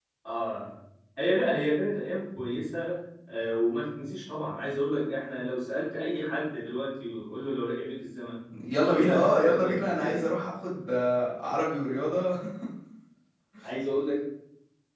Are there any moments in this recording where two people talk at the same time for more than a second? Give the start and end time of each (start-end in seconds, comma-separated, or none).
8.9-10.3